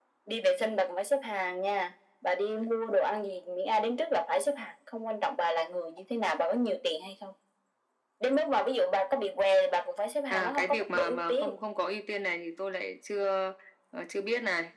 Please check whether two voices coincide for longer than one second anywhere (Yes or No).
Yes